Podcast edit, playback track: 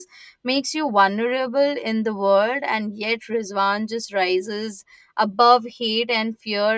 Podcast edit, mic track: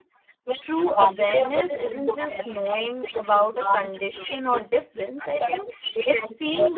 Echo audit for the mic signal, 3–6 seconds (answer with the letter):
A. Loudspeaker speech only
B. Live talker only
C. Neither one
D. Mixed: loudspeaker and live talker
D